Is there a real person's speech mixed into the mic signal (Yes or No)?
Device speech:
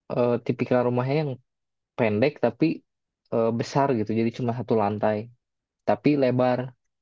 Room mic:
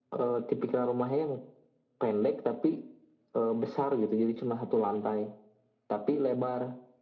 No